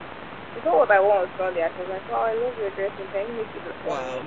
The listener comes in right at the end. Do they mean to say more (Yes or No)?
No